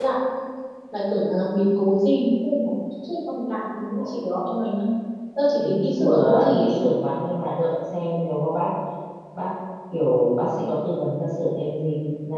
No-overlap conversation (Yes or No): No